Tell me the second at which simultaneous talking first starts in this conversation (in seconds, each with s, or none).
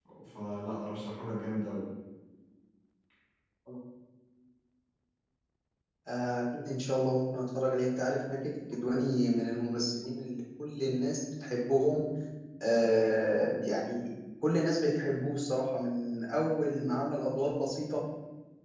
none